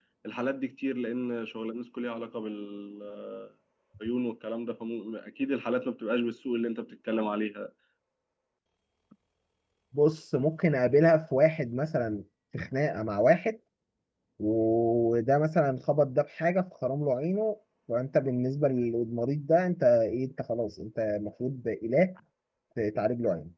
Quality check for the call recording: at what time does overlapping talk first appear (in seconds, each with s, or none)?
none